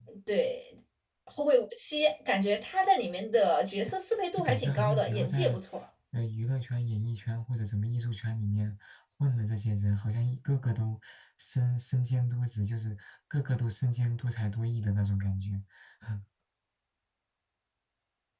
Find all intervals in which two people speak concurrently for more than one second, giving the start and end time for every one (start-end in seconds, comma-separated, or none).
4.3-5.6